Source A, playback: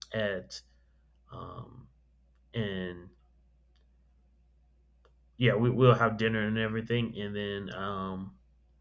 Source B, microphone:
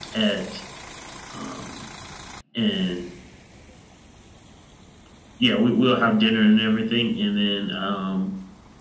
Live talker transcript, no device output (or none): none